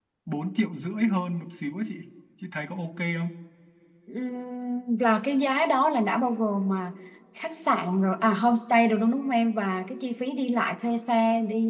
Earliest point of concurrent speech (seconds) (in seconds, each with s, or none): none